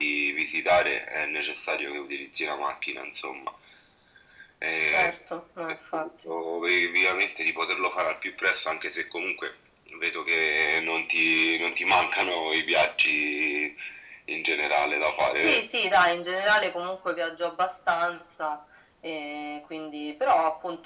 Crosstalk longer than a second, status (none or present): none